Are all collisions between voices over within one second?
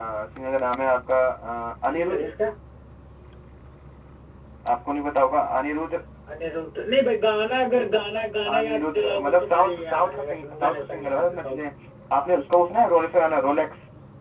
No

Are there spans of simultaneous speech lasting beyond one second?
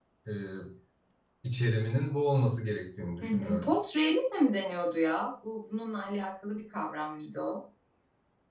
No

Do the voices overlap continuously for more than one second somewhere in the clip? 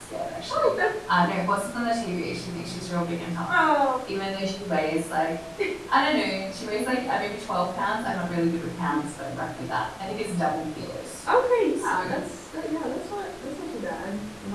No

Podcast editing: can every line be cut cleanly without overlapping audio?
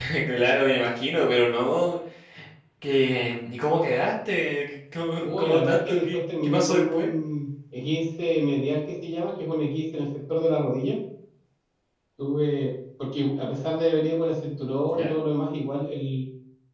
No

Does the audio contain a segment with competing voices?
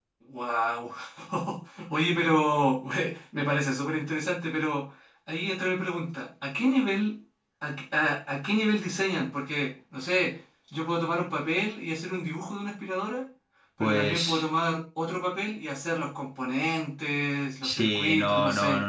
Yes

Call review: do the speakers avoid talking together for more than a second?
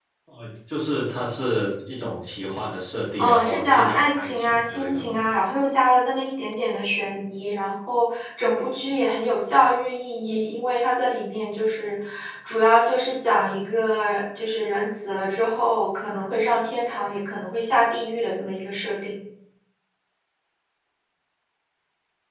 No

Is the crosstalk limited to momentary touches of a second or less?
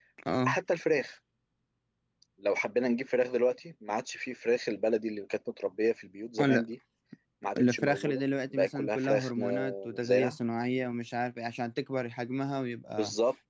No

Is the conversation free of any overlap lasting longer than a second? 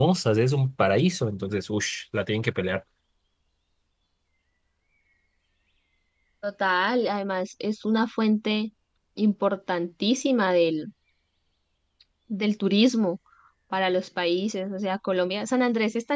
Yes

